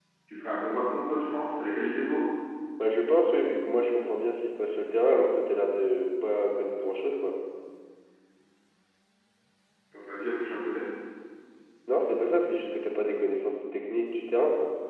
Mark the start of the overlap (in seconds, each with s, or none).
none